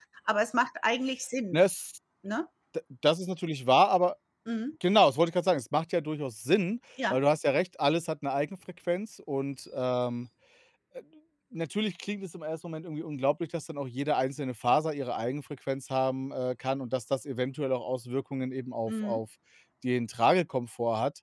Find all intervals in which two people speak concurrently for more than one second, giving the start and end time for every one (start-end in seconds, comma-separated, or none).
none